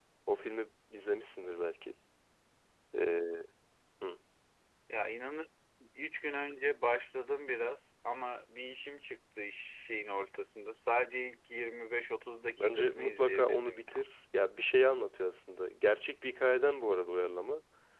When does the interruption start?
13 s

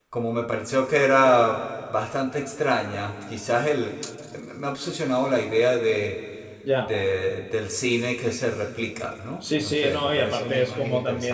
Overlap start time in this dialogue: 9 s

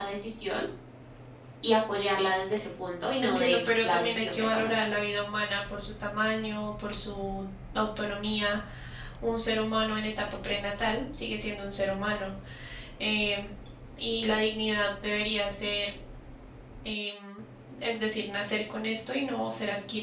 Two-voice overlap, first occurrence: 3 s

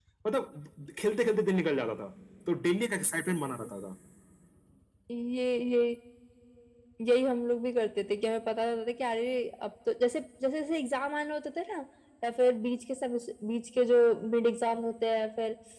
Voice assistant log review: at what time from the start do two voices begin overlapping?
none

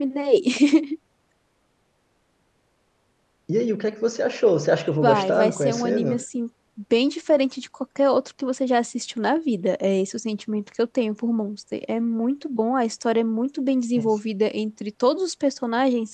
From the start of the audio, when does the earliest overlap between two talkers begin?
5 s

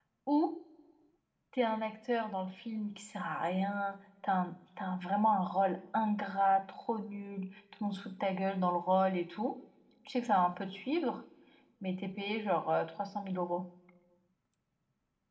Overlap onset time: none

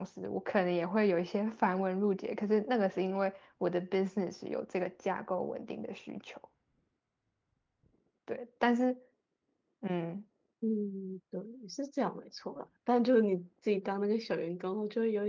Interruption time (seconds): none

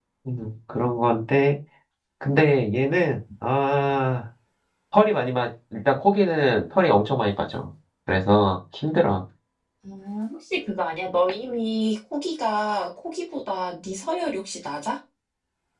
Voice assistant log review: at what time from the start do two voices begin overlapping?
none

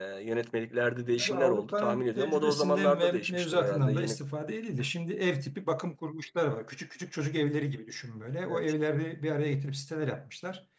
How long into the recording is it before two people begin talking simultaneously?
1 s

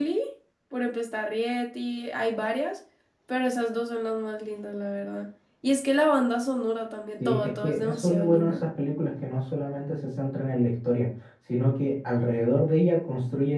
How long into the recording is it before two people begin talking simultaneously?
7 s

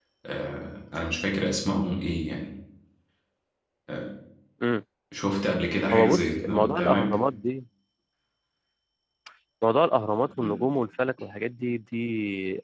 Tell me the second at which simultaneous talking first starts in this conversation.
6 s

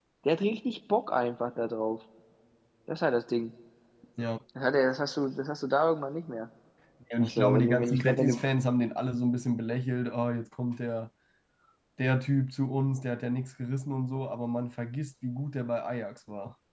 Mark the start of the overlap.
7 s

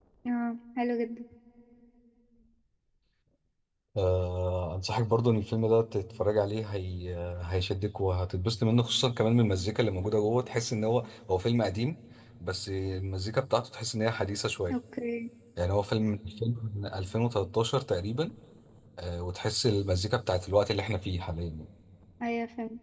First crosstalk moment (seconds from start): none

